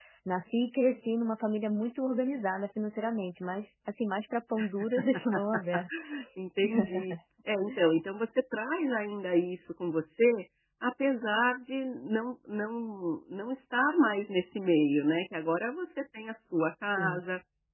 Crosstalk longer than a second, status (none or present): none